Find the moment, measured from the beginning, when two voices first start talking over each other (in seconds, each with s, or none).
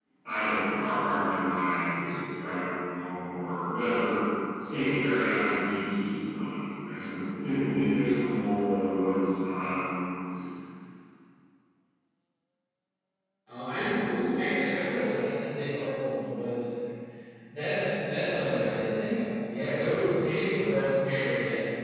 none